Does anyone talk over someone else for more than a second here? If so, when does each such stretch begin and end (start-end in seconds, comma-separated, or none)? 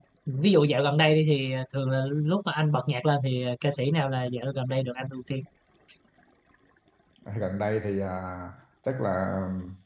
none